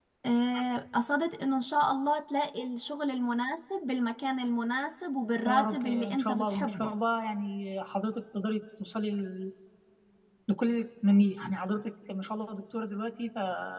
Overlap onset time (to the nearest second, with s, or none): 5 s